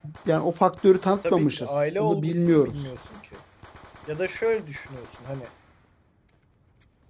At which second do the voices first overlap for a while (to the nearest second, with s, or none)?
1 s